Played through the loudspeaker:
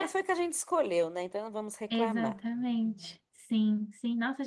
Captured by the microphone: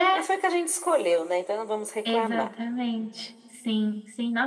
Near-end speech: none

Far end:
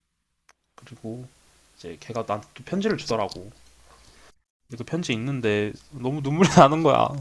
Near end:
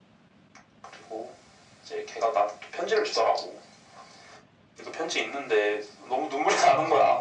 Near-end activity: none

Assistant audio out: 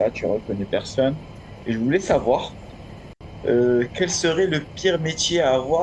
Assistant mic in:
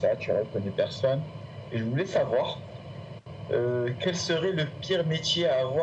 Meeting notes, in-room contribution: none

